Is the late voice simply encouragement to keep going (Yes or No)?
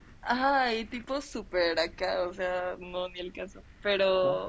Yes